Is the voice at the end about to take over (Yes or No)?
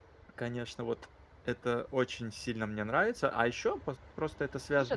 Yes